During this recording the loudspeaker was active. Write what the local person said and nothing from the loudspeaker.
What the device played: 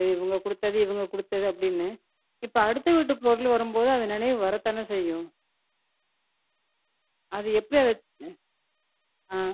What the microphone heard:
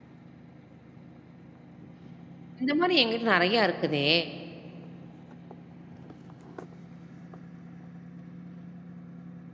இந்த மாரி என்கிட்ட நிறையா இருக்குதே.

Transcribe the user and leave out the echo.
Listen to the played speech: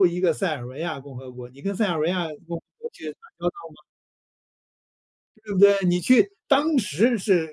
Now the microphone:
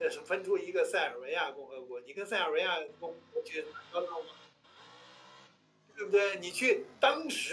none

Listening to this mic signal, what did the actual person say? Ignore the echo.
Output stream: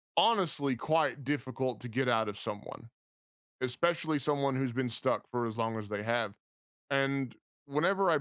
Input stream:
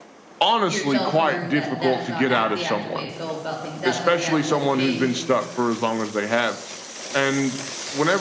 yourself learned that that's not act the actual way to go about things, that's not the actual way to change.

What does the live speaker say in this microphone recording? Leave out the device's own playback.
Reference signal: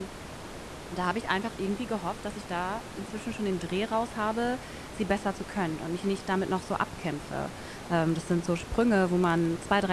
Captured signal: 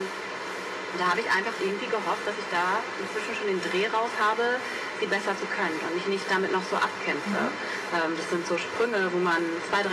Mhm.

